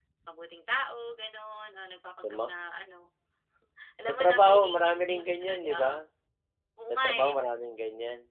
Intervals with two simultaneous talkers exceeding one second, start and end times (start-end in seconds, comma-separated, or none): 4.1-5.9